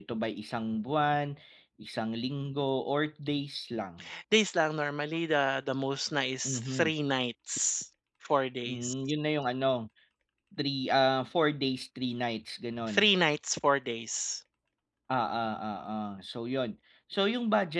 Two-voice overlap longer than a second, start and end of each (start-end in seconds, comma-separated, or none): none